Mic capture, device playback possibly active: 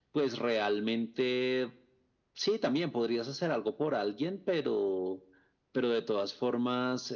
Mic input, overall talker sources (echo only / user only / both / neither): echo only